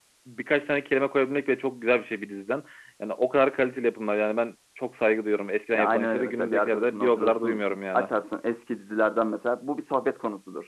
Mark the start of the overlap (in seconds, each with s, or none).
5.7 s